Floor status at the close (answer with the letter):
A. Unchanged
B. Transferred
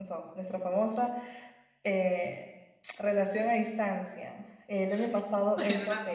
A